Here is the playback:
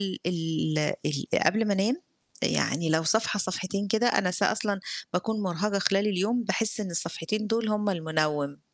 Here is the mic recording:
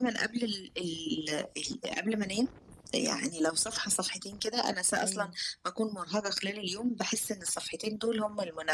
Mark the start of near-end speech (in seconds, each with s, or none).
5.0 s